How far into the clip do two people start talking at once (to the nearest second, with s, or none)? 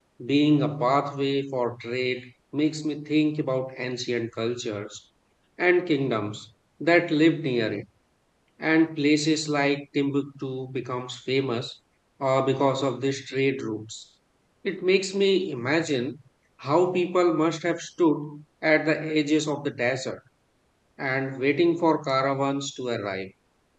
none